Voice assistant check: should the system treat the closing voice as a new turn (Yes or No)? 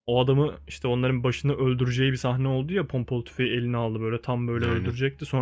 No